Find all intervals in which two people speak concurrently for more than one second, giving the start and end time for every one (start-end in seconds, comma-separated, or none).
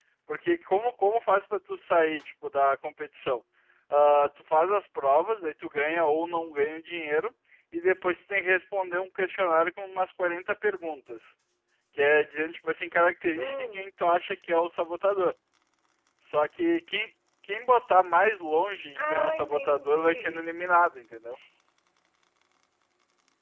19.0-20.4